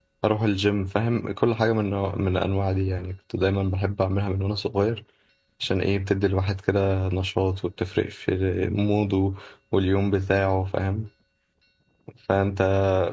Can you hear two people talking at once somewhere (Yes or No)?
No